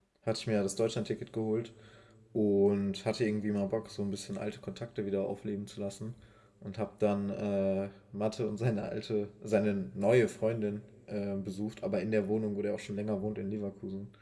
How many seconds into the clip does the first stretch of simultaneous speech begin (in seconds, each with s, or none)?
none